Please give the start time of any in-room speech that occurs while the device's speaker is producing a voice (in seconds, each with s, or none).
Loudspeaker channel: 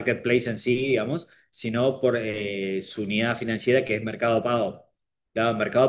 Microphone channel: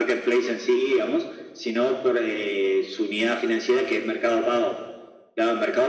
none